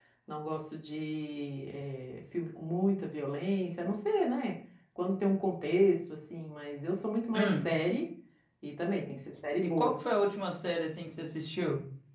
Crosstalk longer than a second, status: none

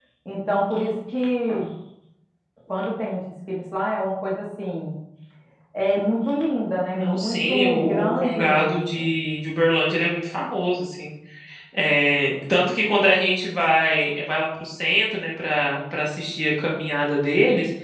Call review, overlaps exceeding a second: present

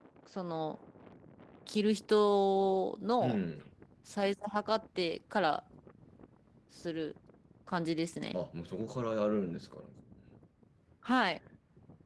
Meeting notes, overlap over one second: none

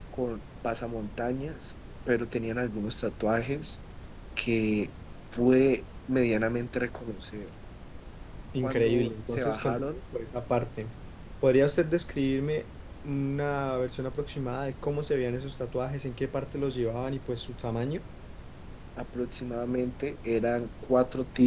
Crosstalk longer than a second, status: present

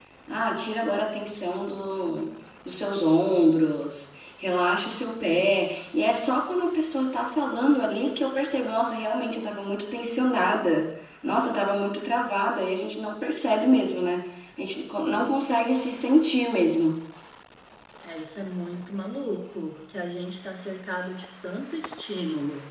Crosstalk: none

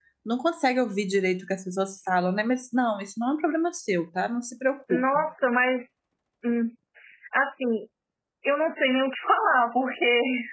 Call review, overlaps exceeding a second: none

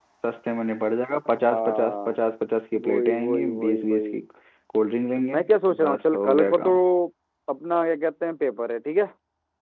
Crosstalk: present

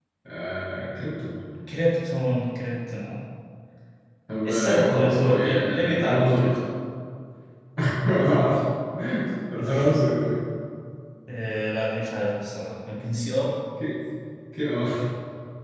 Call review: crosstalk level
present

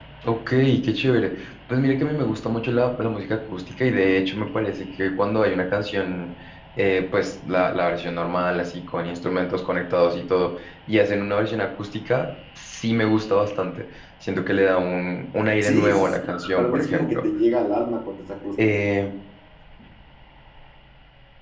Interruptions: present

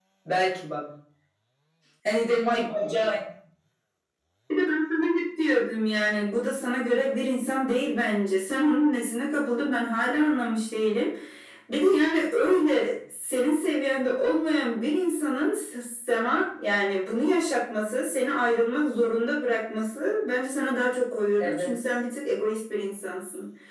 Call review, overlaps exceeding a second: none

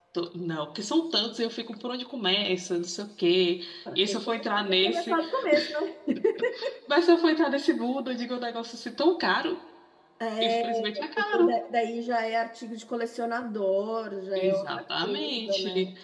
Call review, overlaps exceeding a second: present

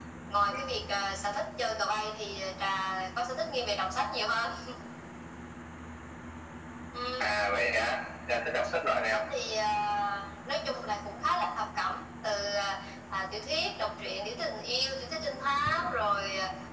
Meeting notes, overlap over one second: none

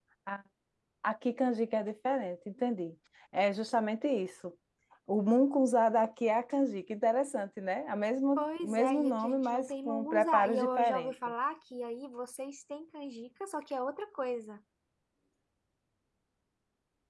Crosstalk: present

